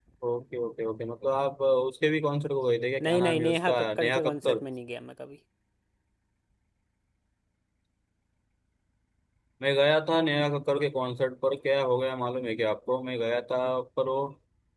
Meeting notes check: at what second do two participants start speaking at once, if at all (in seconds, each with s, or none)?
3.0 s